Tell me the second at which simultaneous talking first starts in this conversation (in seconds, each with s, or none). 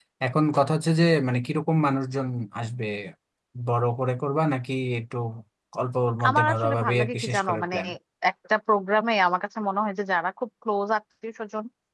6.3 s